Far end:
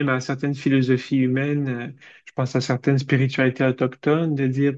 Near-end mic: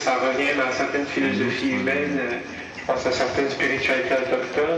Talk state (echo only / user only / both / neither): both